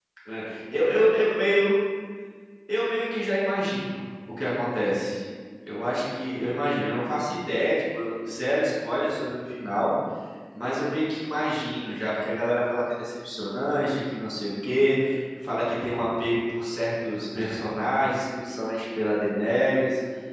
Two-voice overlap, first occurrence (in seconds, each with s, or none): none